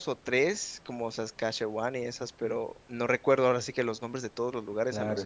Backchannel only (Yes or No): No